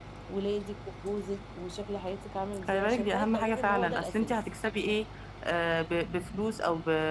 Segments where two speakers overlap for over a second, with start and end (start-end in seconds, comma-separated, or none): 2.7-4.4